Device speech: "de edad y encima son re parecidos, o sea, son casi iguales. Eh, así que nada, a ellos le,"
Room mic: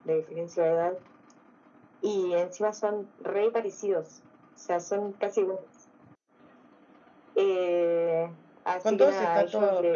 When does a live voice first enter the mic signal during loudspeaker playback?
9 s

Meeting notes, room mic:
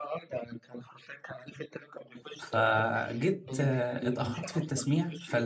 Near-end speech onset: 2 s

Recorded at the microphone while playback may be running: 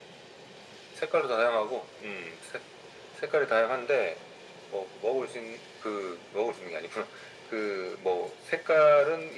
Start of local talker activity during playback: none

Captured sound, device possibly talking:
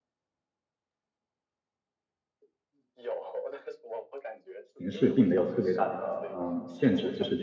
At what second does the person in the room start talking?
5 s

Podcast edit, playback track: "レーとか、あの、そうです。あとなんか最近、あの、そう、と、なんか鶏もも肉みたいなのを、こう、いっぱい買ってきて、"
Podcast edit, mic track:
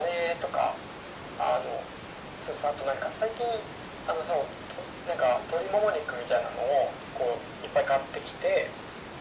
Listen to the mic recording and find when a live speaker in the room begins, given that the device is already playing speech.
none

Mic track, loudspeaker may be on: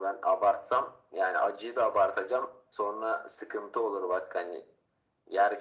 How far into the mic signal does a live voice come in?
none

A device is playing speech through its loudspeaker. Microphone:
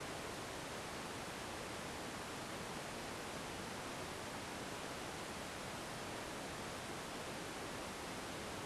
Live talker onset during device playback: none

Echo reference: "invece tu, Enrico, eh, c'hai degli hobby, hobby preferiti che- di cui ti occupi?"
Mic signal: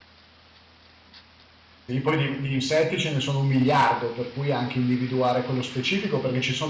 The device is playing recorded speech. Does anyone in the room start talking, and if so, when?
2 s

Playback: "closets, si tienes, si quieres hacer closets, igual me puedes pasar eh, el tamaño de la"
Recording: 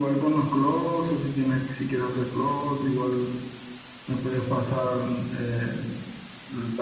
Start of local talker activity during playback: none

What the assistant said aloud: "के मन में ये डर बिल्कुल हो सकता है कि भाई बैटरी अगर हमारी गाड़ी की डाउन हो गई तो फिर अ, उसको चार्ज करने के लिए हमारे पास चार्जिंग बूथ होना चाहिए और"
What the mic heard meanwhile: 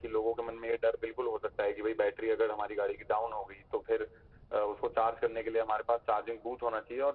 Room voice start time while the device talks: none

